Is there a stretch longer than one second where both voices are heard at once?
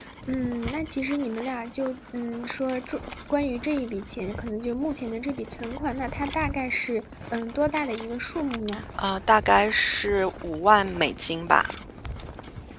No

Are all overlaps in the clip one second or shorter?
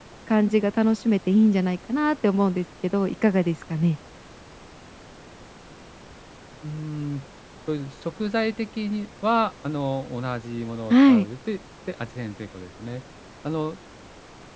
Yes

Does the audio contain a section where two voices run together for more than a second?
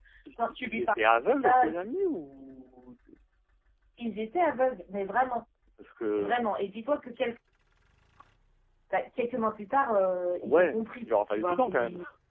Yes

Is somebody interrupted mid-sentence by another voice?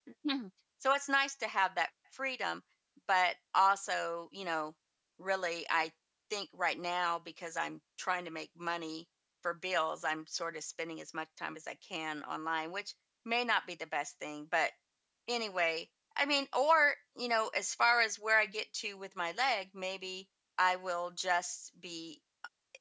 No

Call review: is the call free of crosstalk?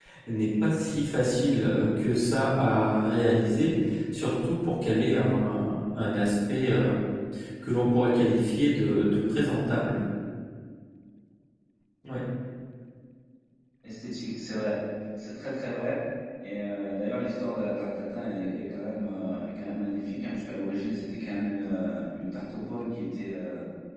Yes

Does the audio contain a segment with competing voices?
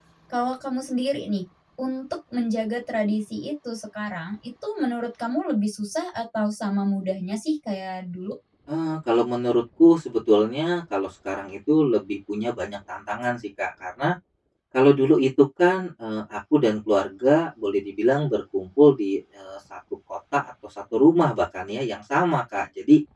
No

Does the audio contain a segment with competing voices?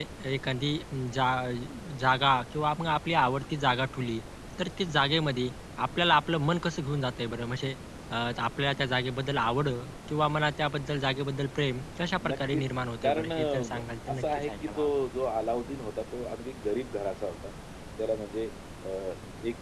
Yes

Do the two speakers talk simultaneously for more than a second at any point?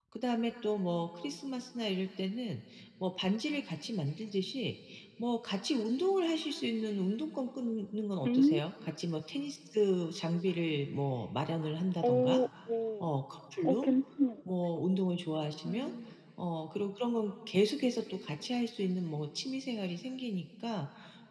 No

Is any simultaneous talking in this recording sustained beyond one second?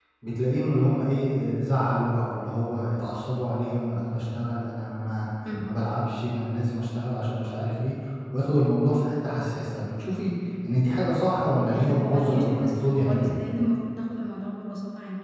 Yes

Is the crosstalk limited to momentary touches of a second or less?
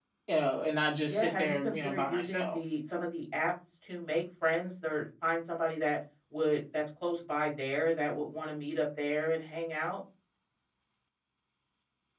No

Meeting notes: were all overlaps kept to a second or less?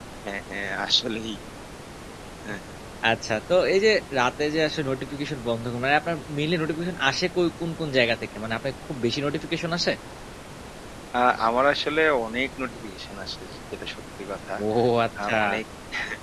Yes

